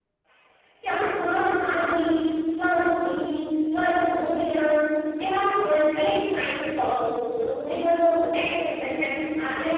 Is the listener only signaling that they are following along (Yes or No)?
Yes